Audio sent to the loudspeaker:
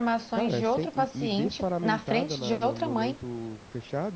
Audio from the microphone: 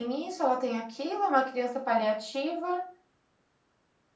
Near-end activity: present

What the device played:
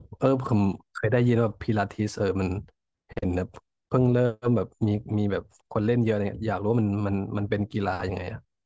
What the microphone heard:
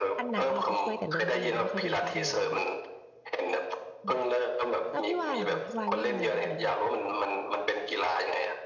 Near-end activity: present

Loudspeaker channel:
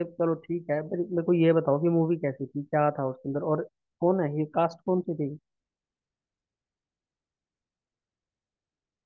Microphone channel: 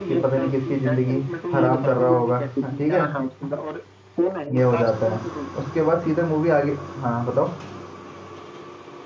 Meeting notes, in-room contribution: present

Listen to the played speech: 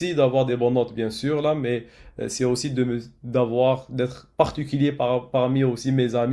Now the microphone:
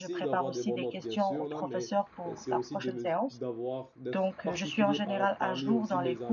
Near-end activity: present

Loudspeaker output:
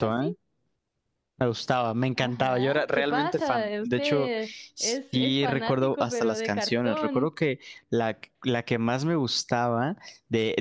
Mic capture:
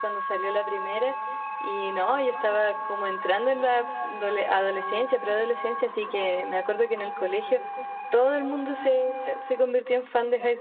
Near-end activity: present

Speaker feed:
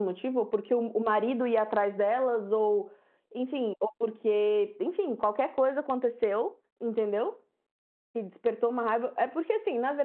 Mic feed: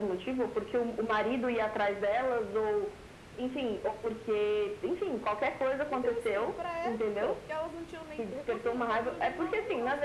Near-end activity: present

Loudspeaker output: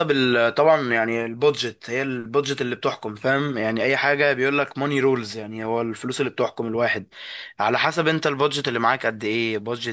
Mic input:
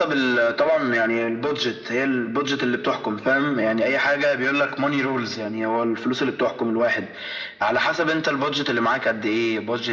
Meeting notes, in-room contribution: none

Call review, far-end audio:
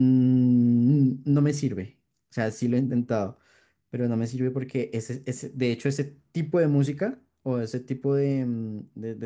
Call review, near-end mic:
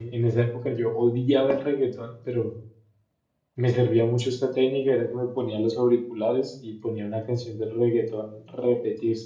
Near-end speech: present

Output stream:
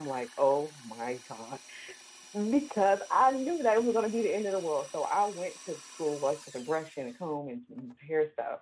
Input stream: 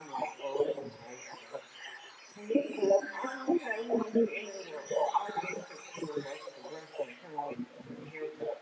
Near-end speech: none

